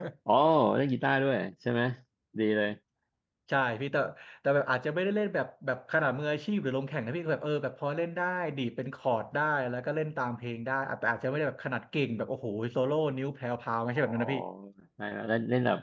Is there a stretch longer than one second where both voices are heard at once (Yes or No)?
No